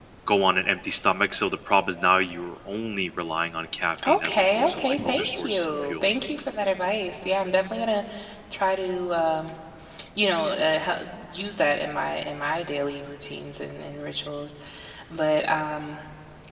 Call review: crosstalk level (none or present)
present